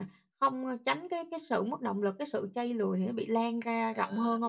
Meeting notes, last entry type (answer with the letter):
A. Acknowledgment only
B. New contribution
B